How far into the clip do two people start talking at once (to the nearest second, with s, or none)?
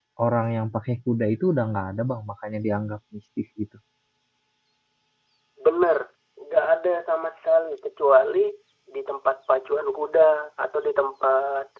none